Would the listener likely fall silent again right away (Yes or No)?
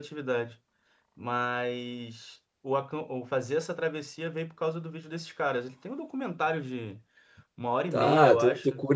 No